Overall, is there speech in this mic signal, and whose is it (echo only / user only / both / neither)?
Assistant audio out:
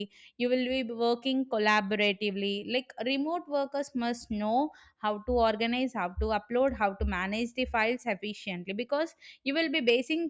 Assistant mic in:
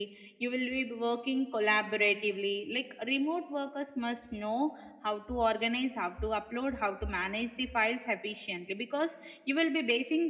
echo only